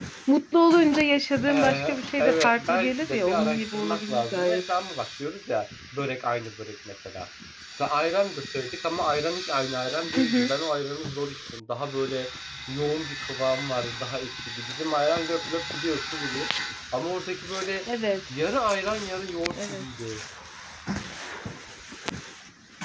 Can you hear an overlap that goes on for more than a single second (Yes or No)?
Yes